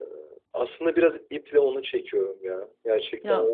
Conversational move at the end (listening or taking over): listening